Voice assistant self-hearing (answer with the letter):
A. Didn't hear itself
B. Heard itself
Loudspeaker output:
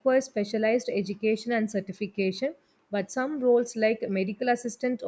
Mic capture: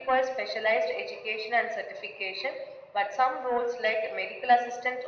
B